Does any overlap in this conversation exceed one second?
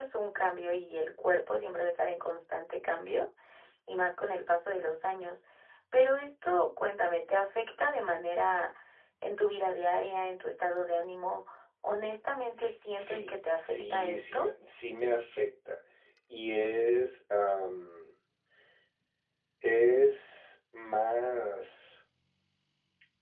Yes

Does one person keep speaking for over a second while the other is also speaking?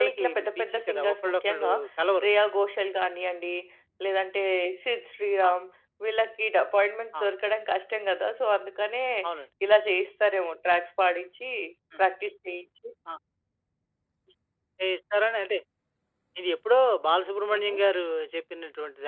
Yes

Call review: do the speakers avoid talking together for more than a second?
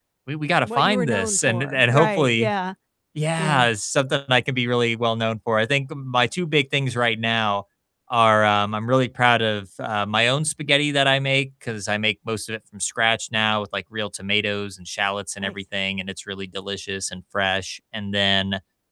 No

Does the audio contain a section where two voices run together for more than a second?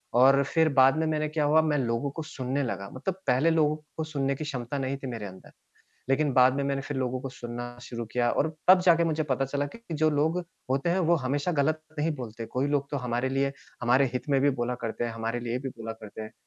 No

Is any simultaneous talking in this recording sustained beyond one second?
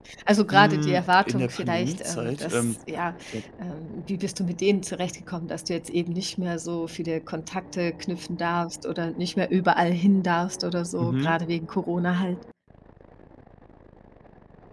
Yes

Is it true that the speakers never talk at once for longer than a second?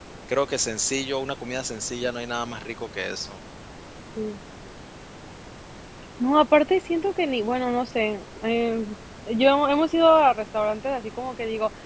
Yes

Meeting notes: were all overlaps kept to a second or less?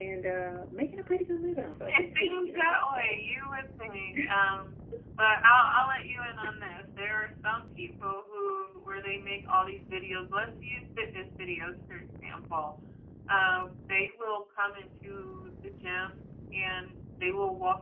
No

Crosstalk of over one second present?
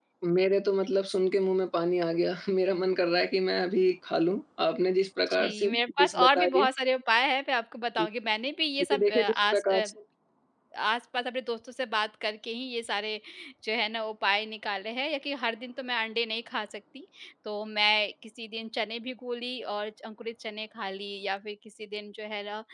Yes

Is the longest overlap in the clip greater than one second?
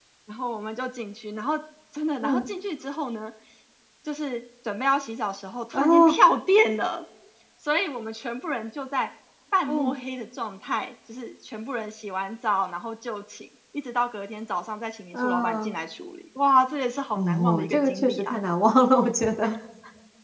Yes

